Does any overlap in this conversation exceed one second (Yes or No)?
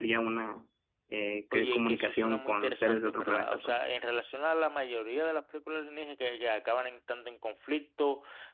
Yes